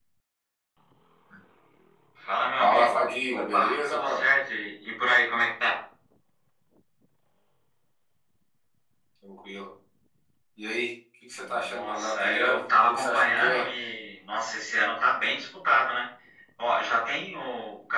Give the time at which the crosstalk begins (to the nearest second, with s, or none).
3 s